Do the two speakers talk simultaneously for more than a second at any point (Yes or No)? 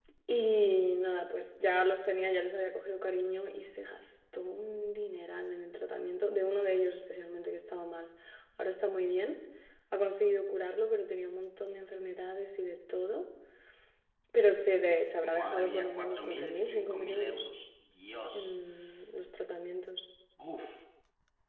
Yes